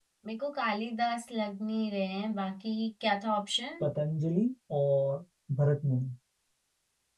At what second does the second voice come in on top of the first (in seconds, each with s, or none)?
none